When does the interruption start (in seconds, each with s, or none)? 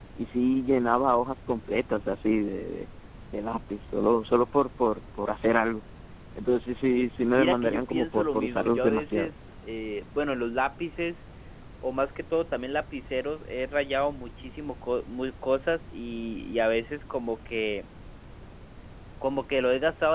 7.4 s